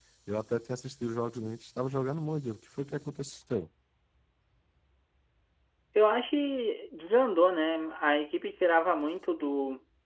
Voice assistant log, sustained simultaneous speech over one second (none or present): none